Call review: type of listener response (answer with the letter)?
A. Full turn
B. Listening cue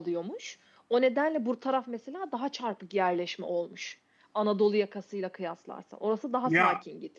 A